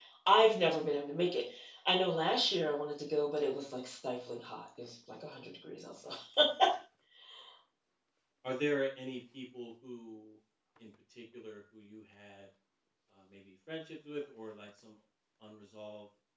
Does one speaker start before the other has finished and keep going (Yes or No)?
No